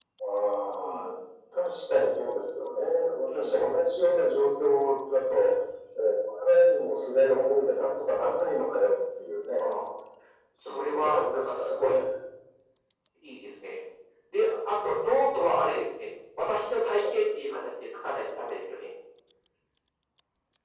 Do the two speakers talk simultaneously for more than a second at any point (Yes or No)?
Yes